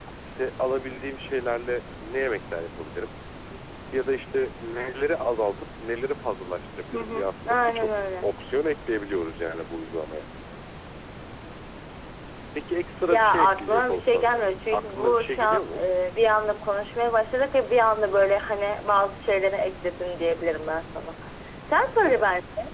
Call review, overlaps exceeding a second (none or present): present